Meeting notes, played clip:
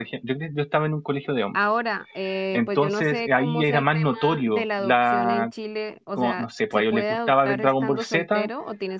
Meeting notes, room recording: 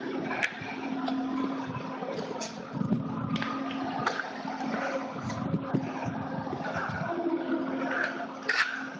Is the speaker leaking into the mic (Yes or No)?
No